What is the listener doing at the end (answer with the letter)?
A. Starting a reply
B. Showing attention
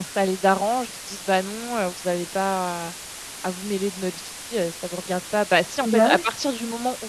B